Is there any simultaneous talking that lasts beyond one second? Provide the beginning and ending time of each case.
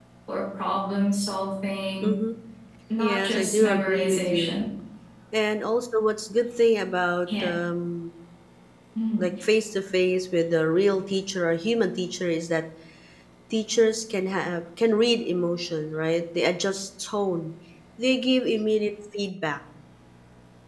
3.0-4.6

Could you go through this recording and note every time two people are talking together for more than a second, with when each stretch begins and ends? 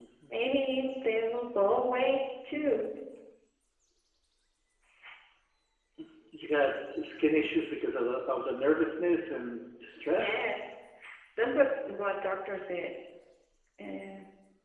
none

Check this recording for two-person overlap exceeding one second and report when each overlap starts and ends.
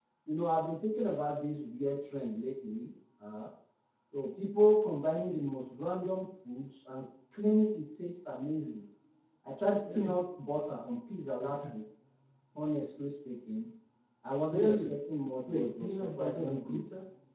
15.5-16.8

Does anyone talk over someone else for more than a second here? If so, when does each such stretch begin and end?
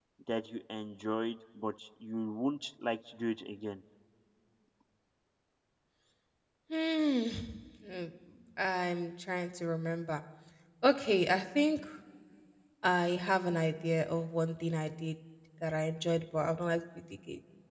none

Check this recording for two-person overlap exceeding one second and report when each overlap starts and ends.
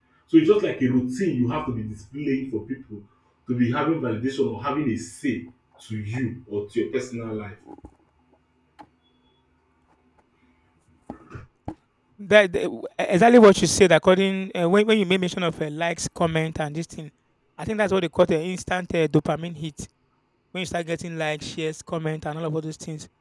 none

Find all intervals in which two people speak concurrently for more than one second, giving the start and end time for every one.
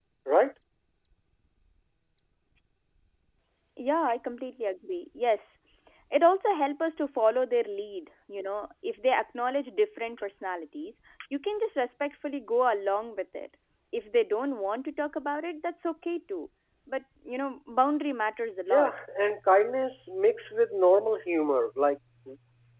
none

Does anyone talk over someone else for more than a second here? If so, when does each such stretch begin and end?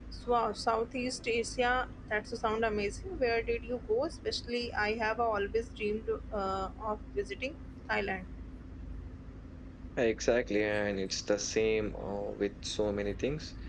none

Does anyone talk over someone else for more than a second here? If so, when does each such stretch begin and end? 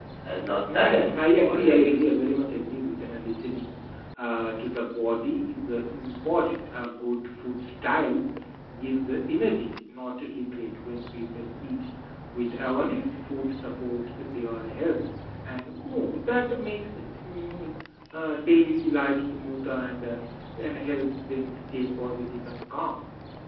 0.7-1.9

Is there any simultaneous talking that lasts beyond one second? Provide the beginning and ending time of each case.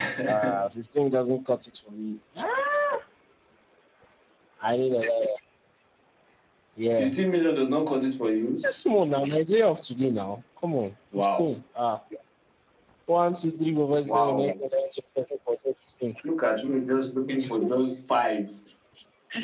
none

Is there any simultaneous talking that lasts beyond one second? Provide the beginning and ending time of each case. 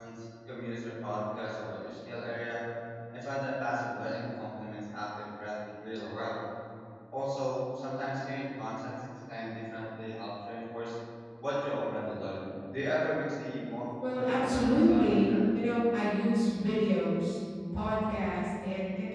14.1-15.3

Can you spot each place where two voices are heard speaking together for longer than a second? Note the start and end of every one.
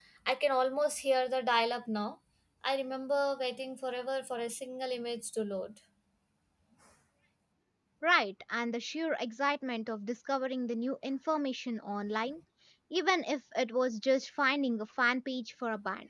none

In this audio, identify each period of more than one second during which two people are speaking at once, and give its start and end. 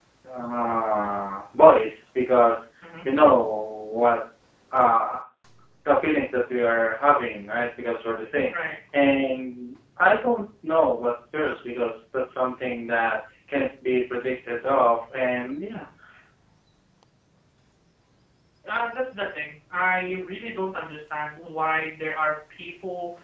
none

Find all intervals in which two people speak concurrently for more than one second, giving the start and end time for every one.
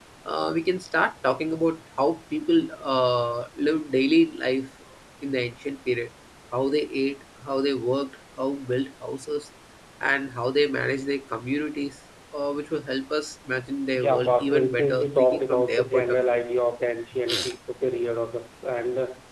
13.9-16.2

